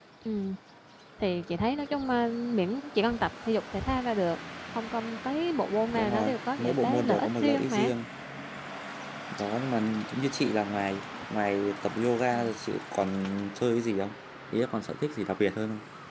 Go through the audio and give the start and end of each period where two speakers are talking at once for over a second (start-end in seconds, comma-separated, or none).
5.9-7.9